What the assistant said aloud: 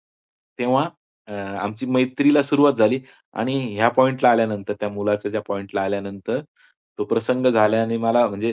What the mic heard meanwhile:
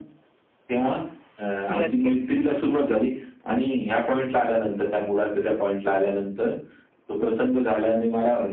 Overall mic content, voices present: both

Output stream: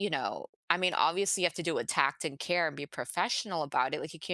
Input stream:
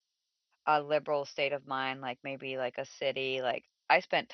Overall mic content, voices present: user only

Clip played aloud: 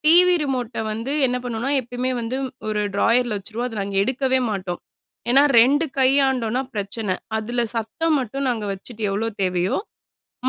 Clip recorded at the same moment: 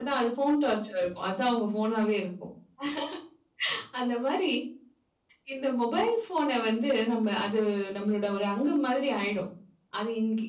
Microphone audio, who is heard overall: user only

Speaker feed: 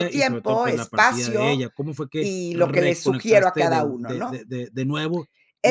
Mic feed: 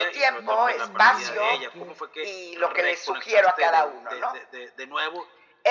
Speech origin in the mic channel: both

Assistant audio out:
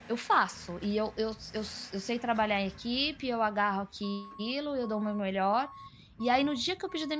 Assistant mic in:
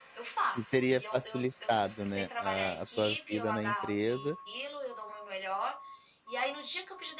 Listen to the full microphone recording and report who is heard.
both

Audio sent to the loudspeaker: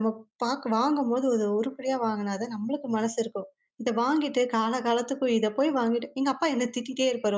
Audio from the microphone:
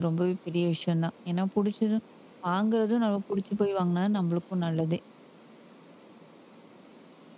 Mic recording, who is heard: user only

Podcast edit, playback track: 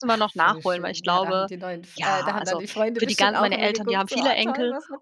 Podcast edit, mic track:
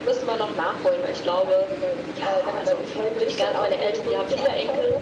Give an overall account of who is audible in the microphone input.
echo only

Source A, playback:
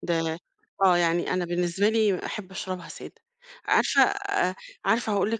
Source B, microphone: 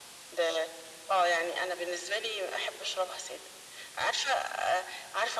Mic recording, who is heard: echo only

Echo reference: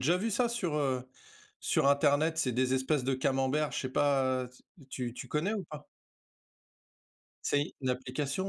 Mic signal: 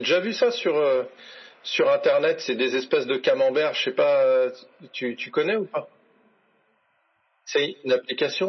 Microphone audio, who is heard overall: echo only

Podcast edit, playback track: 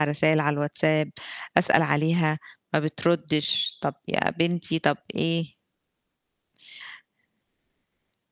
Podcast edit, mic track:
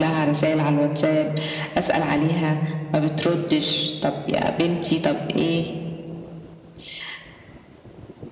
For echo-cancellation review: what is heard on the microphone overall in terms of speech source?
echo only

